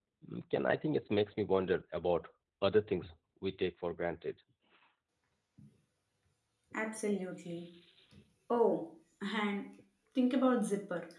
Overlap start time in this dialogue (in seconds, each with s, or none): none